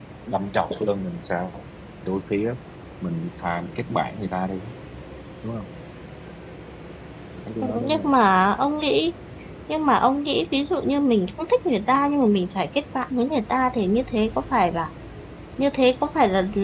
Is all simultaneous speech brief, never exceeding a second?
Yes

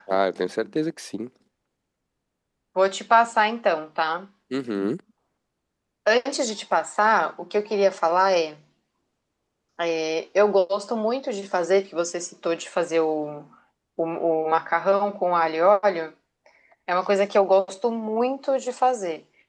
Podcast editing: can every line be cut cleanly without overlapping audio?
Yes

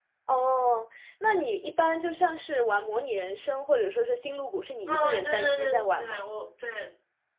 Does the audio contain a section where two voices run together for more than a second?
Yes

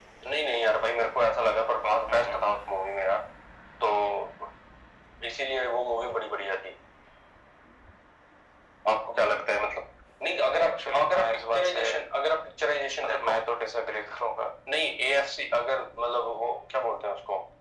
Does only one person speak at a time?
No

